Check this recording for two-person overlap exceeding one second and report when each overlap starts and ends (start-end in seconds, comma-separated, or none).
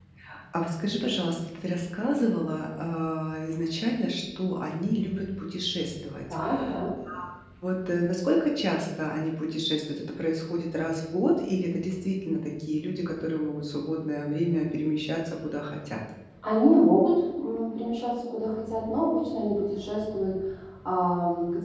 none